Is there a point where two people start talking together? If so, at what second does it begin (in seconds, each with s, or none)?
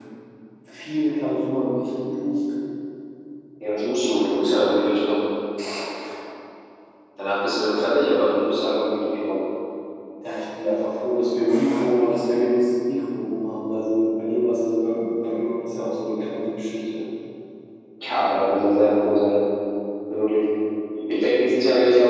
none